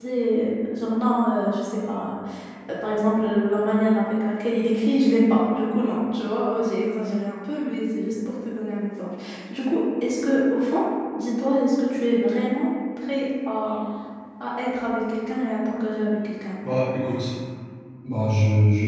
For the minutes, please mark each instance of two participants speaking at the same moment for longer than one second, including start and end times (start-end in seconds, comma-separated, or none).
none